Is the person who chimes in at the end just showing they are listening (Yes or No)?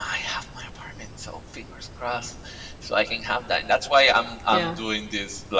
Yes